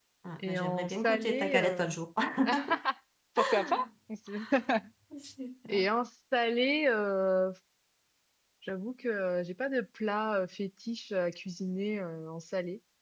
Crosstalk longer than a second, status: present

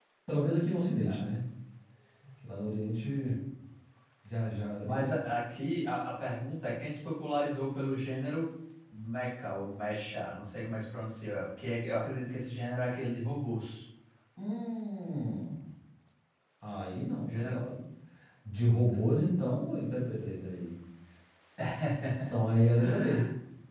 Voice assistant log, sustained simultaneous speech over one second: none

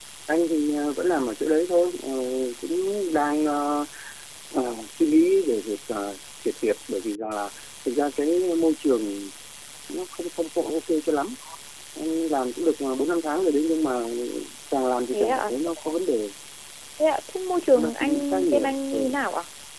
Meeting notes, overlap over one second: present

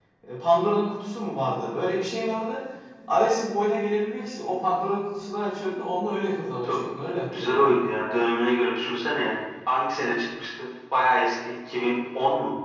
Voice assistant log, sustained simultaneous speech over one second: none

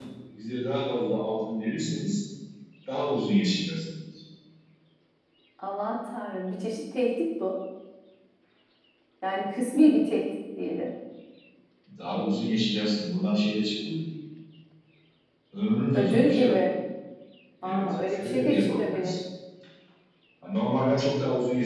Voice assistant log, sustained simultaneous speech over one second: present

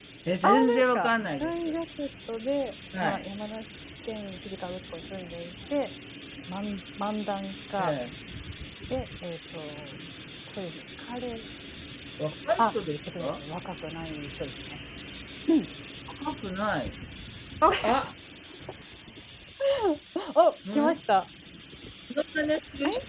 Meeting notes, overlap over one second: present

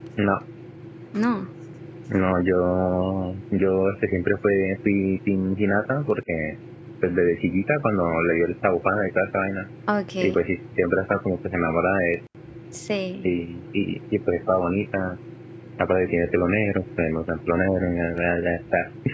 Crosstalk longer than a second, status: none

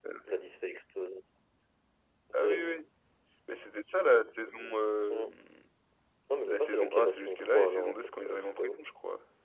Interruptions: present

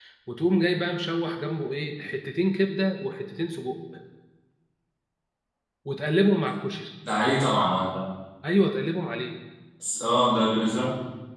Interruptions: none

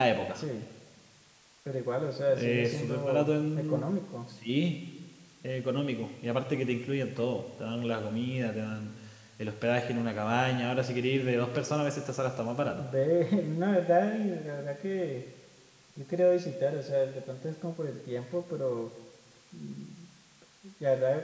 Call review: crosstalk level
present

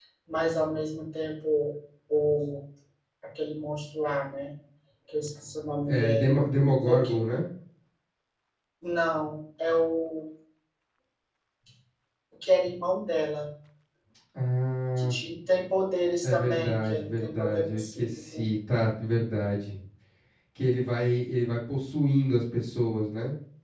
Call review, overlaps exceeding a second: present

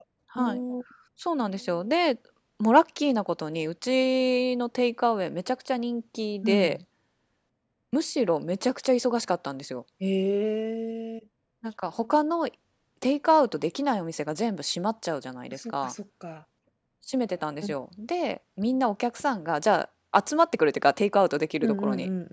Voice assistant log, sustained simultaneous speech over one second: none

